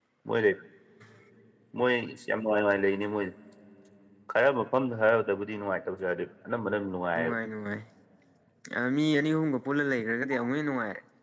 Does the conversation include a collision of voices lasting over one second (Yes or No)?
No